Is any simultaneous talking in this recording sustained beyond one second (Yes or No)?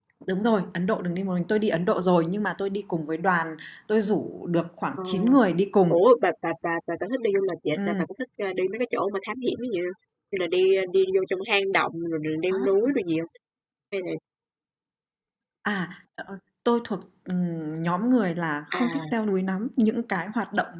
No